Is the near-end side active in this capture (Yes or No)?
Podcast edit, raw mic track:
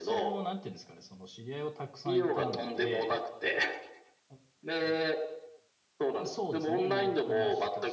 Yes